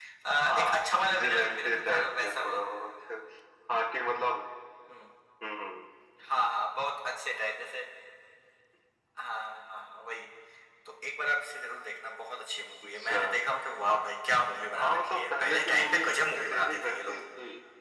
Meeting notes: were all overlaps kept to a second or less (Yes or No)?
No